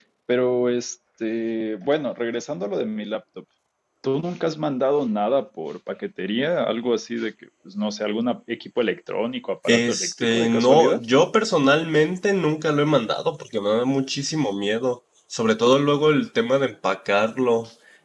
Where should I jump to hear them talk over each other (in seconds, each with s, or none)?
9.7 s